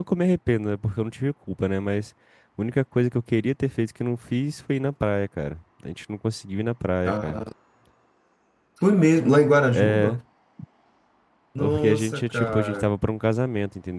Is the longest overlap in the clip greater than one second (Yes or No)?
Yes